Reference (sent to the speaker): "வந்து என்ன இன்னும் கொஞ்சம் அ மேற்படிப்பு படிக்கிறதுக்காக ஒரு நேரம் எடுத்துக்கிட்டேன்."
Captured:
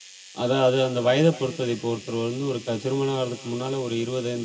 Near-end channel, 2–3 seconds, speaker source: user only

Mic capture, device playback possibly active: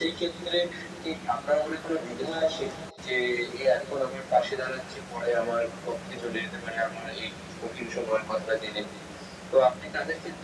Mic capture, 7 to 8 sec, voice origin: echo only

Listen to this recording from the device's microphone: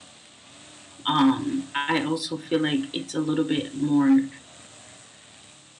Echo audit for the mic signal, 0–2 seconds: user only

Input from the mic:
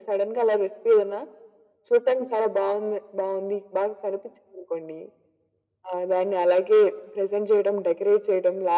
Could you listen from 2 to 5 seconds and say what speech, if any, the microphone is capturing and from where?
echo only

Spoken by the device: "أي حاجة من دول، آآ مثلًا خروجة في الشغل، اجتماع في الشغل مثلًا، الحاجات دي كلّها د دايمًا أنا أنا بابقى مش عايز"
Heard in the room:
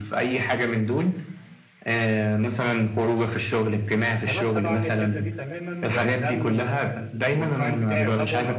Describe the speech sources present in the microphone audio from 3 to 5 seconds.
both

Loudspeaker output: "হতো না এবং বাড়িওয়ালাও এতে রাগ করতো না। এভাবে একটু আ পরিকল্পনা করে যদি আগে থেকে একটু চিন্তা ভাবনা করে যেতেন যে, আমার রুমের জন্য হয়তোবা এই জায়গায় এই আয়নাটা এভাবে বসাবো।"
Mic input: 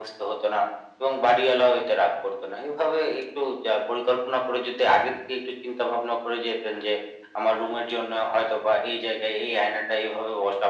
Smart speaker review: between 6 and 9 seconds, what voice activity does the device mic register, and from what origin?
echo only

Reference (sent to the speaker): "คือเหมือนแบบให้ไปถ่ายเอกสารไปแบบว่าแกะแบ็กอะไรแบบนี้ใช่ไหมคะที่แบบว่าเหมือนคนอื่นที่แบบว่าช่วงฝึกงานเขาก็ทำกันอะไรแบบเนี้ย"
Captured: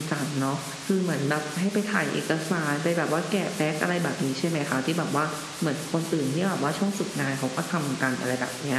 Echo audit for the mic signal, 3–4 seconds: echo only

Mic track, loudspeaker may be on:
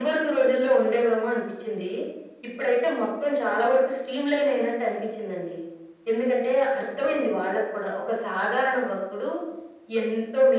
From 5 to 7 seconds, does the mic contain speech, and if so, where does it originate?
echo only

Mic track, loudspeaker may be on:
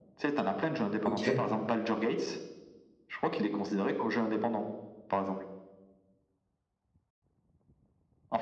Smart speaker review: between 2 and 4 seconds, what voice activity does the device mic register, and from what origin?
echo only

